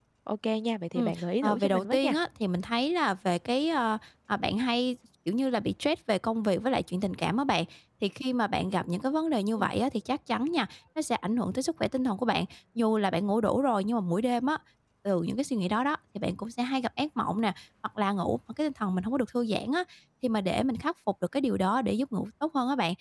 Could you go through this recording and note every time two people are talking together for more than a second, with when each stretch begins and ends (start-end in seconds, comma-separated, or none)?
1.0-2.2